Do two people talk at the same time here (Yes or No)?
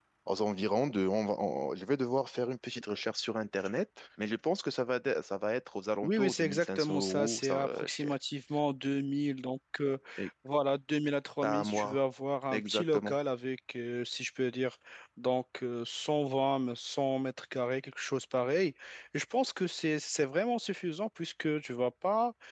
Yes